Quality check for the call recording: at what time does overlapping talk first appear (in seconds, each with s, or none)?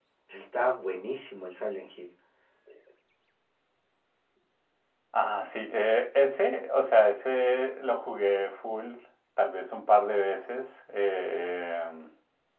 none